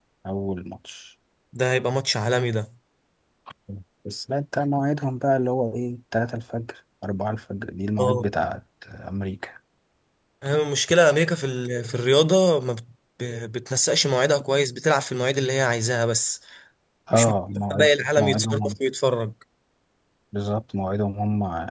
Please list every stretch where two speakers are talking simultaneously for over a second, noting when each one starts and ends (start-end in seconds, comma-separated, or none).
17.1-18.7